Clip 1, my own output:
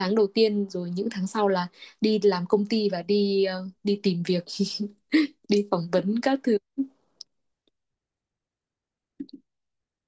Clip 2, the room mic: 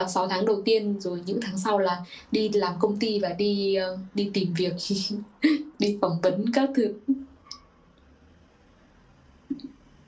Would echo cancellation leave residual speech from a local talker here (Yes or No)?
No